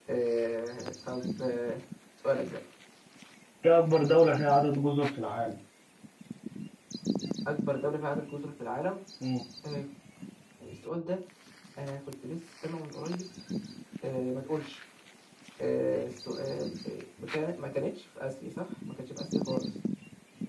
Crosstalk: none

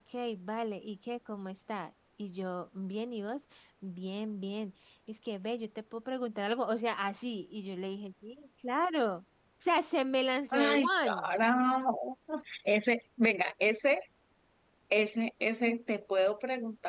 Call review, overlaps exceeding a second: none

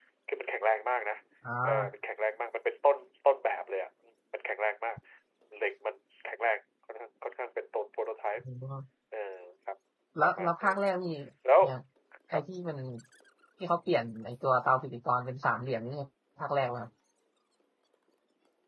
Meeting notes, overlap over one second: none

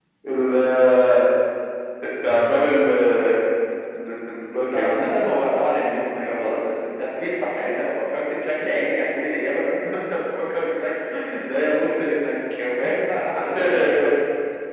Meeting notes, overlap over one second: none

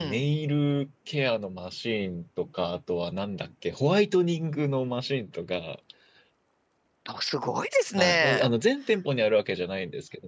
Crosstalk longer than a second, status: none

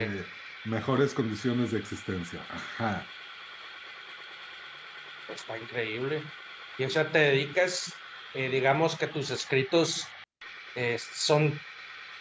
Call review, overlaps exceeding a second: none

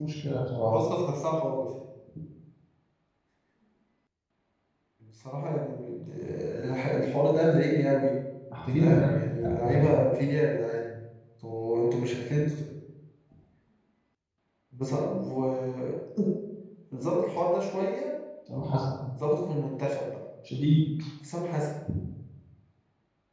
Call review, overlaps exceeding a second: present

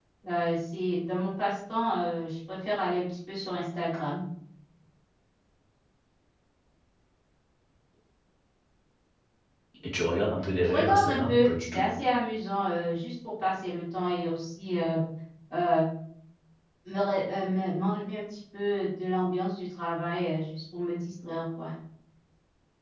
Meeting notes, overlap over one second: present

